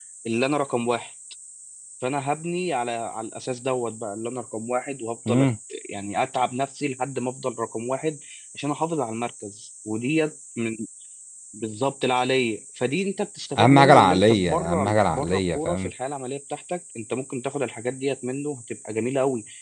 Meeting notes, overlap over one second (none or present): present